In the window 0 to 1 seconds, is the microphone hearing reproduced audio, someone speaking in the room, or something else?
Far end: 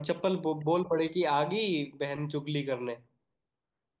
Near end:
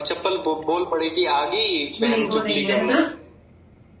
echo only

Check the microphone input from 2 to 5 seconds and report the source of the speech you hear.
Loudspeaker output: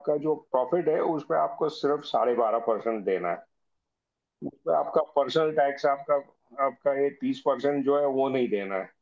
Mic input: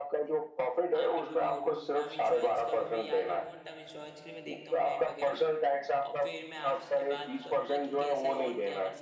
both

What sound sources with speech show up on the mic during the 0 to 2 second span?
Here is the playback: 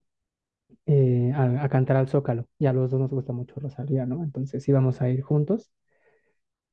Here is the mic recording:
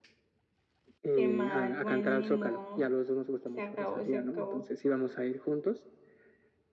both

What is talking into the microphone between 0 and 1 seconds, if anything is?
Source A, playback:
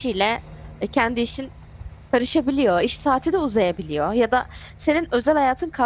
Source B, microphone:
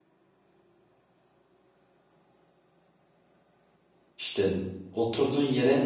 neither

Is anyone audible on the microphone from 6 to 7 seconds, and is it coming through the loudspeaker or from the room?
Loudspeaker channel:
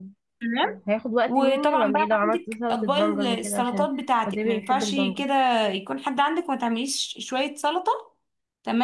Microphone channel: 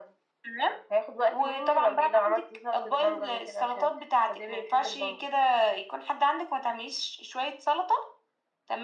echo only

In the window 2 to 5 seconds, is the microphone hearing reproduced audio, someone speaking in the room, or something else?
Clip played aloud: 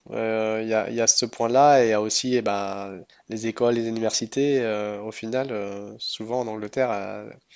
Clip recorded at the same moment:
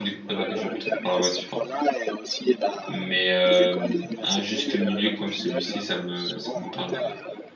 both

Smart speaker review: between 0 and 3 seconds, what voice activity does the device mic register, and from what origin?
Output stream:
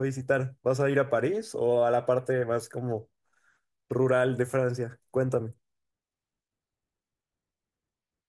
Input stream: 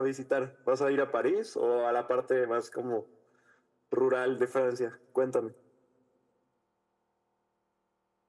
echo only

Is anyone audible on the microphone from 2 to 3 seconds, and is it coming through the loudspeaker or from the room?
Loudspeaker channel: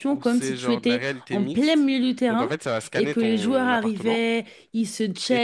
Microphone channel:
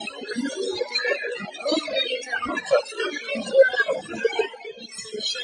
echo only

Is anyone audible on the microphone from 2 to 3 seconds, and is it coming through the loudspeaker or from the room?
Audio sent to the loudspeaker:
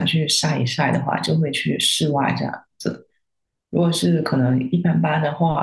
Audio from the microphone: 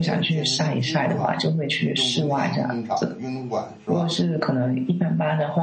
both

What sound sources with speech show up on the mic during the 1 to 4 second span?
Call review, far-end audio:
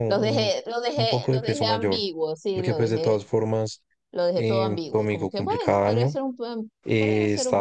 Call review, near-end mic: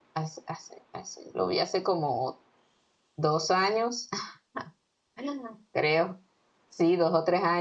user only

